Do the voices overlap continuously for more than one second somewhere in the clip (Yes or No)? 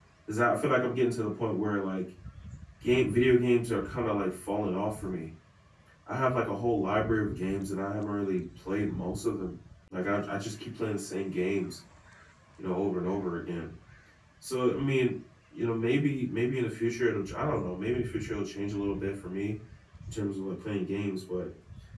No